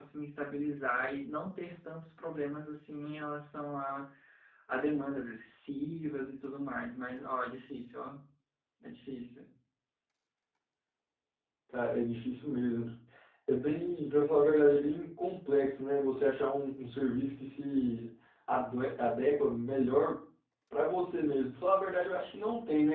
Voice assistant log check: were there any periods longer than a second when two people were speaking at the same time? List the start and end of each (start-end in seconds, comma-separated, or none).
none